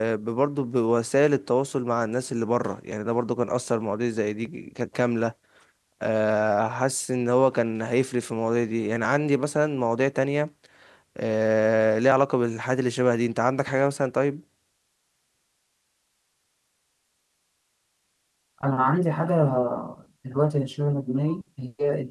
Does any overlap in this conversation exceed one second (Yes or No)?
No